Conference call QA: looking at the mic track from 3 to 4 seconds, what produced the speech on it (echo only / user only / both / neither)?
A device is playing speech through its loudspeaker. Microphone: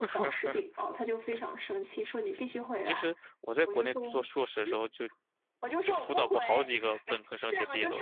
both